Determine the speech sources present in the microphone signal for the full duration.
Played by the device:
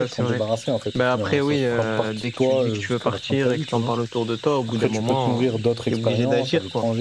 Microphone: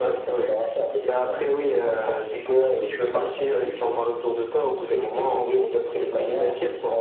echo only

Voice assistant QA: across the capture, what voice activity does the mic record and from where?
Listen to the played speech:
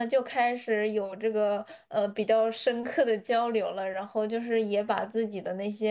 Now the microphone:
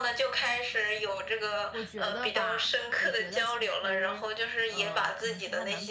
both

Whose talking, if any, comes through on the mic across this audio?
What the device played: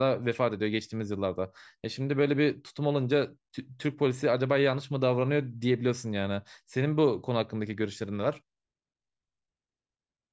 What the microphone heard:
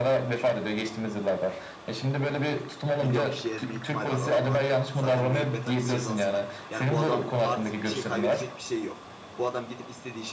both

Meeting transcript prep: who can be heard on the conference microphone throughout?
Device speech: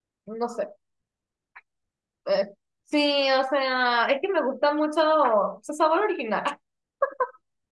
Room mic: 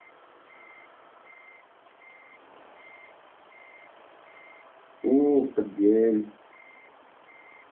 user only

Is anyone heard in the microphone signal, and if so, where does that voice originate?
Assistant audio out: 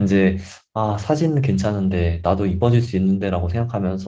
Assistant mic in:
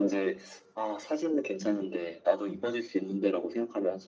echo only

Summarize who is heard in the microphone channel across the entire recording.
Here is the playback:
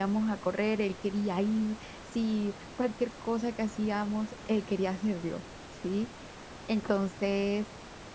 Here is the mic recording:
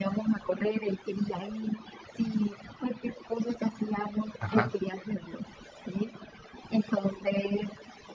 both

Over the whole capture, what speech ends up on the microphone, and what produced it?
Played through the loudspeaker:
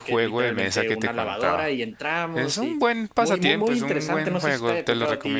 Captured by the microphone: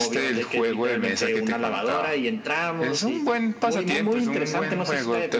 echo only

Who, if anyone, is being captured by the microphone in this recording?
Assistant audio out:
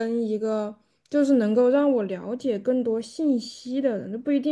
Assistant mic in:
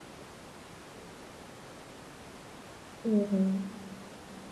user only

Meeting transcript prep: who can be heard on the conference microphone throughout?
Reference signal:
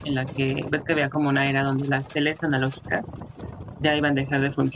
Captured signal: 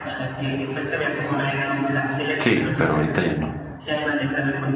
both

